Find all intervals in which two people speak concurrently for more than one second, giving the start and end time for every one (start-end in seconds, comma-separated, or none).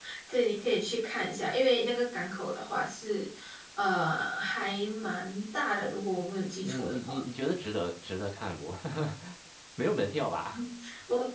none